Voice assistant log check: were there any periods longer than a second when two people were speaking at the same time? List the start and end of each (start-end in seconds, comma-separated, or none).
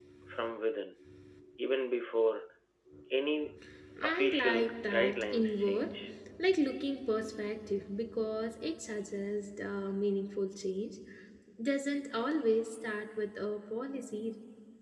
4.0-5.9